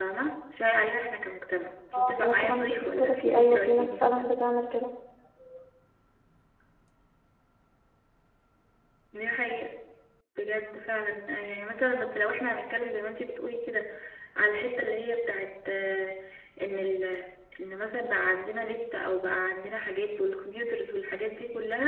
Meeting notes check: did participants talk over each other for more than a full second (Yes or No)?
Yes